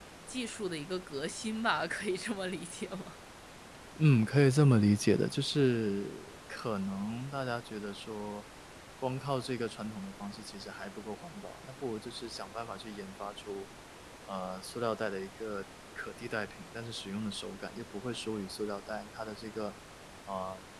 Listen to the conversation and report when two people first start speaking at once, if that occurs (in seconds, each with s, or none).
none